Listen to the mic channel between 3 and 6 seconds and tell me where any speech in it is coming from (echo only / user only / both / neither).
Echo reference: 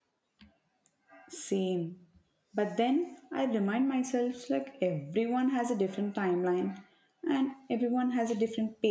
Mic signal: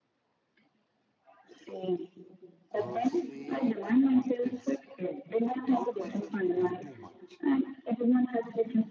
both